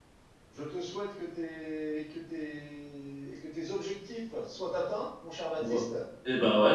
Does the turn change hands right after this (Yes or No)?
Yes